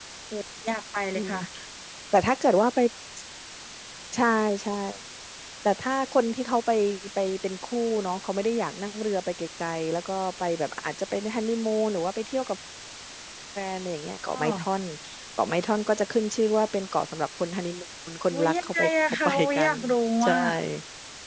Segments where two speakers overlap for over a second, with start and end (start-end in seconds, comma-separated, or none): 18.3-19.7